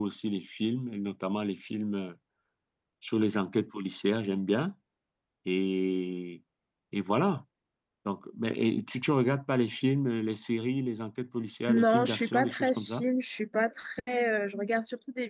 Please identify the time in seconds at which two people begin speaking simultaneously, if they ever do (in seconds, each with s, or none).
11.7 s